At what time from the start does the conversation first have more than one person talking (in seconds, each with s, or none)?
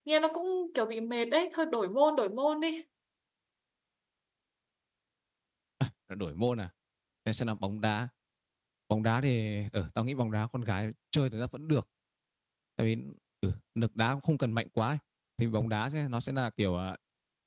none